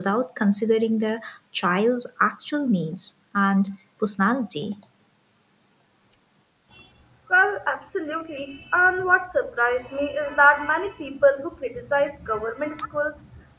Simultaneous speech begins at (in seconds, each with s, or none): none